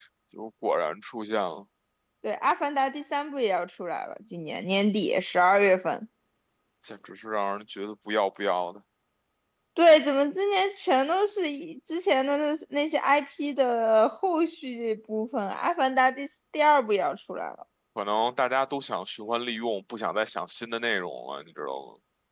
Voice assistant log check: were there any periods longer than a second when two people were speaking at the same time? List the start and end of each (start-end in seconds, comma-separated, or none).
none